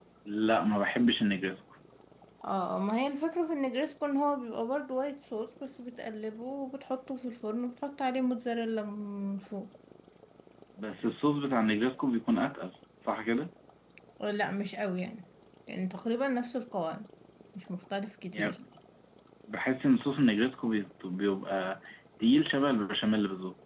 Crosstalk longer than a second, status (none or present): none